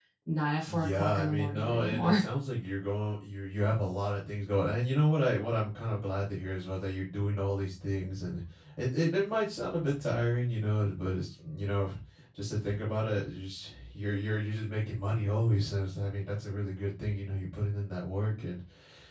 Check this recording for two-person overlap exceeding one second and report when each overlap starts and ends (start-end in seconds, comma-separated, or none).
0.7-2.2